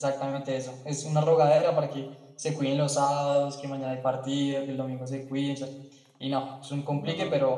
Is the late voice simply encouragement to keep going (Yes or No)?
Yes